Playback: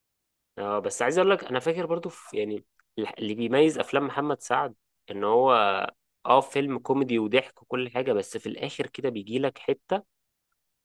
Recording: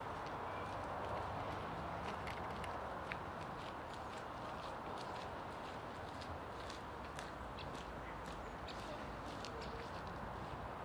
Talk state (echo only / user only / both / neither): neither